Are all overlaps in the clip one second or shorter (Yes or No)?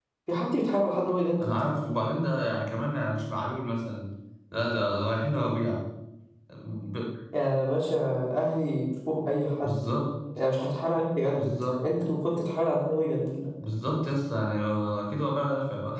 Yes